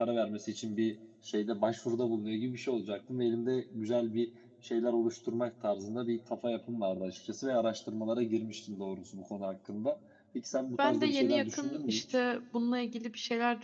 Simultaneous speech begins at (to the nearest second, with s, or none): 11 s